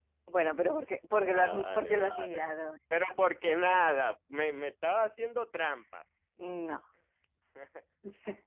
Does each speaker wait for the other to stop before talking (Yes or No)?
No